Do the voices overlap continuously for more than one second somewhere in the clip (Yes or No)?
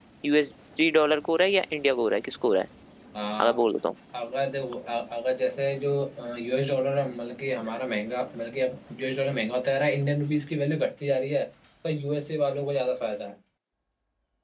No